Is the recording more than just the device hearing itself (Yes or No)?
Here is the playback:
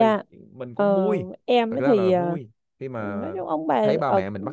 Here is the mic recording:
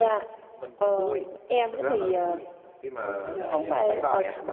Yes